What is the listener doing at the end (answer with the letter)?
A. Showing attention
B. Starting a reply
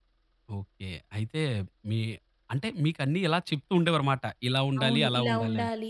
B